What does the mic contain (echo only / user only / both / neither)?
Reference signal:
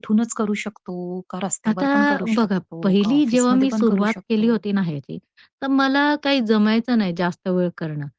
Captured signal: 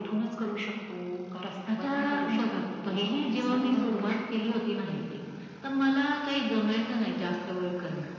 echo only